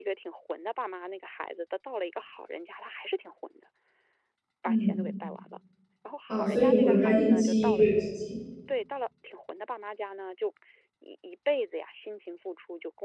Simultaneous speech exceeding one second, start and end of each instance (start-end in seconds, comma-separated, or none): 6.3-7.8